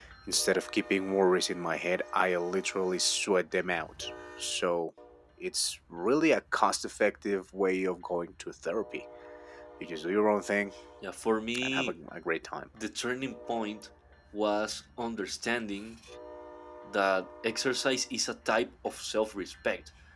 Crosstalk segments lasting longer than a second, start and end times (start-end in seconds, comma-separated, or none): none